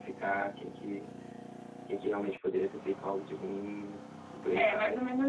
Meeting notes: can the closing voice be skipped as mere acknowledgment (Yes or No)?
No